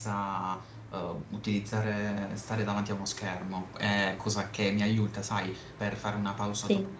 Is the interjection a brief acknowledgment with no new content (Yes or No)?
Yes